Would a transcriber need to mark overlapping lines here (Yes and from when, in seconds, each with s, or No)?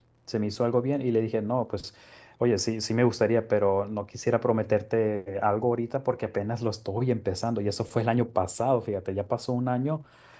No